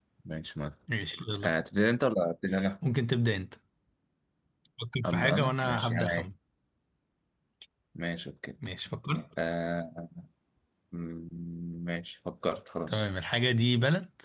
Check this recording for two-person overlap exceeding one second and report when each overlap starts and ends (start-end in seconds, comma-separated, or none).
5.0-6.2